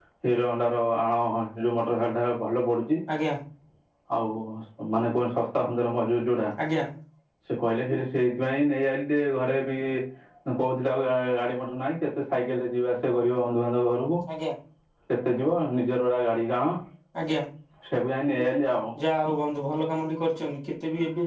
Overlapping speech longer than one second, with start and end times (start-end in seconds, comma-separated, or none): none